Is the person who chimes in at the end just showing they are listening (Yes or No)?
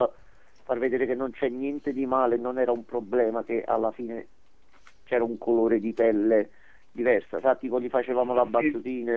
Yes